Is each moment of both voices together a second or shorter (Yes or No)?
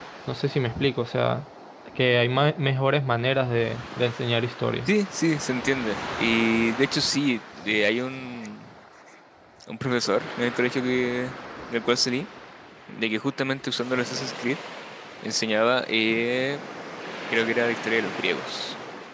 Yes